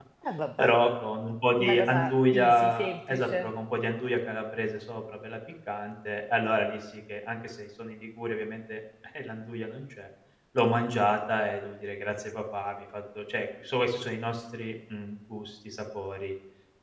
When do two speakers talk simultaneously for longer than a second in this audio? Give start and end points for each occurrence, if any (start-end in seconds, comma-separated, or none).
1.6-3.5